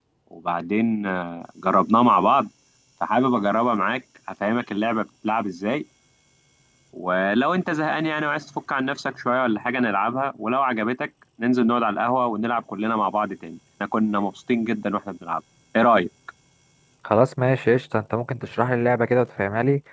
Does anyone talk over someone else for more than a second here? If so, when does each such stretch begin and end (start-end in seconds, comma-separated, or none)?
none